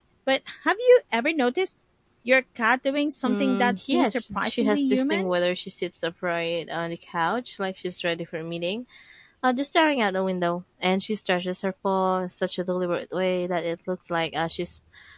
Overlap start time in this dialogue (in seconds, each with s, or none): 3.2 s